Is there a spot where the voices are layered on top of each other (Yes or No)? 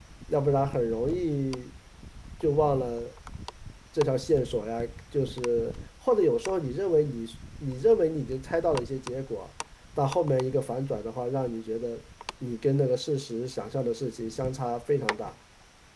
No